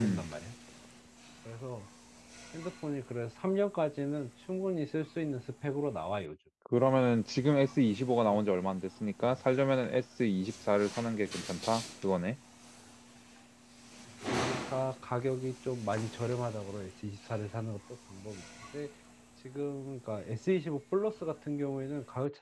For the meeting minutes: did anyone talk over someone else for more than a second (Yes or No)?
No